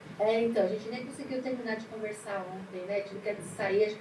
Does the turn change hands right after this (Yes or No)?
No